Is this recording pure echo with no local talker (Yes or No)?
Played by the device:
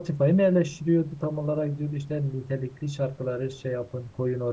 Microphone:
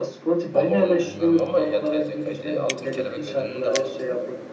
No